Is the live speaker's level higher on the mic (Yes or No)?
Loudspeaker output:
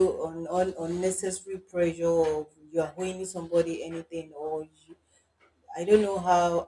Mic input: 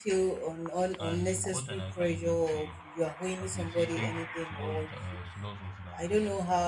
No